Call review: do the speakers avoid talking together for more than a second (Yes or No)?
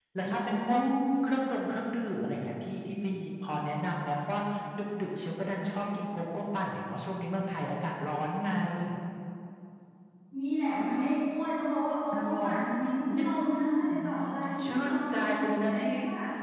No